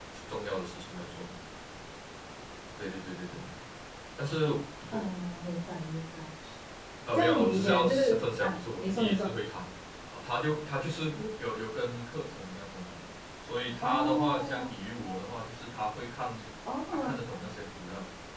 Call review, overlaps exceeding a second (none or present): present